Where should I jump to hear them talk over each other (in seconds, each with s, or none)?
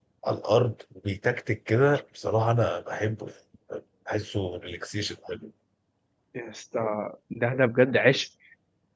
none